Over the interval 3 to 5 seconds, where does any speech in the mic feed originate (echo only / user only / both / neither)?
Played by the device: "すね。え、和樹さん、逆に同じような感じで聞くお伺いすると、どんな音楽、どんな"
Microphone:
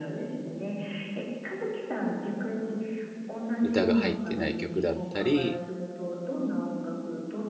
both